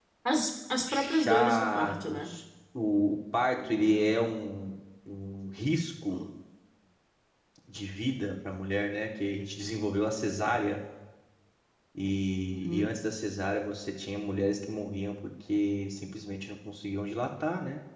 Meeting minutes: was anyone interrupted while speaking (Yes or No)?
Yes